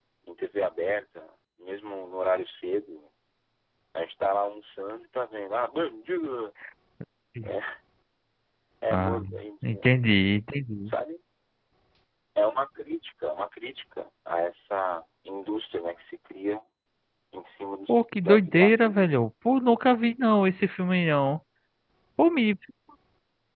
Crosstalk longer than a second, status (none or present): present